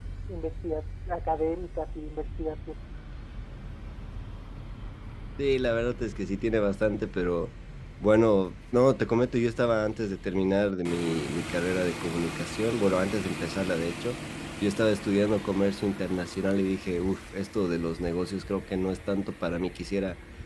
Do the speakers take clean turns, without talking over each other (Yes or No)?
Yes